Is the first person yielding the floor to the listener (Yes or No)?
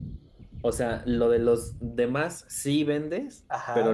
Yes